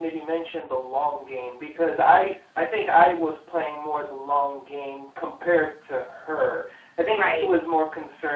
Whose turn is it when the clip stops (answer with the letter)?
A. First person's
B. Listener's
A